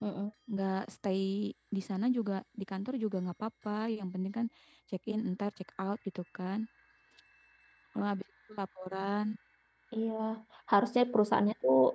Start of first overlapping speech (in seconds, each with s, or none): none